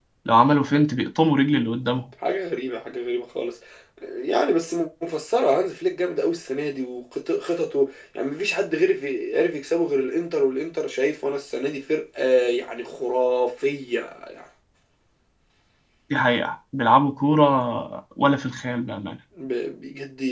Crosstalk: none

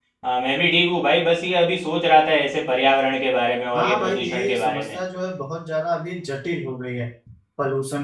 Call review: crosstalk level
present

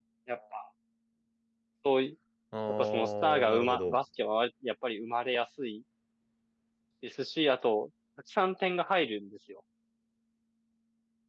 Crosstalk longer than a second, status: present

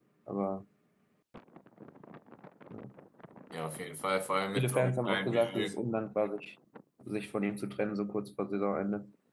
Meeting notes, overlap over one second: present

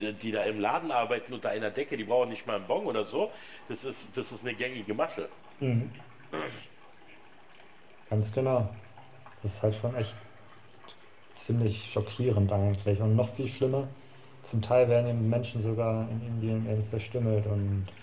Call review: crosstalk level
none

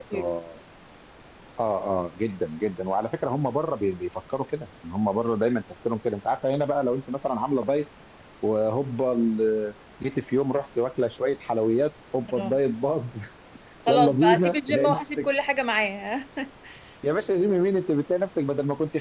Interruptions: present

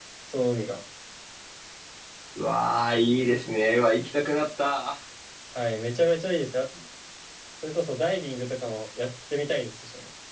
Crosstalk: none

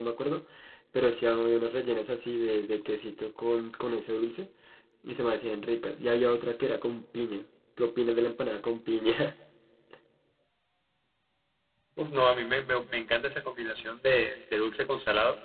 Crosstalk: none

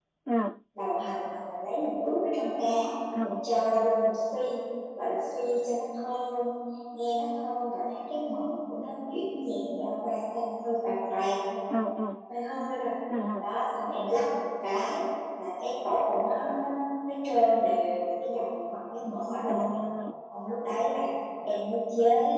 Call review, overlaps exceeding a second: none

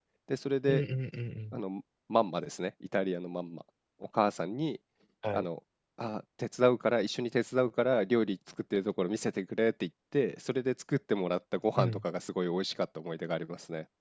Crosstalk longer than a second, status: none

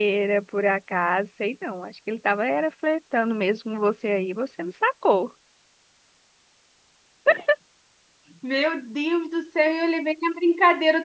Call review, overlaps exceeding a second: none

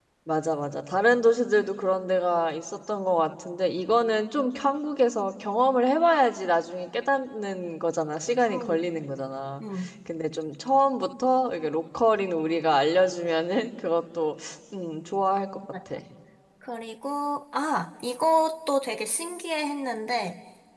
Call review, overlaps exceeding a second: none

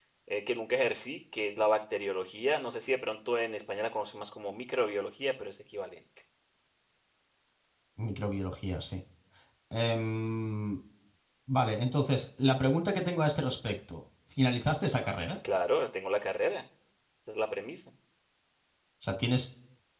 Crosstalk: none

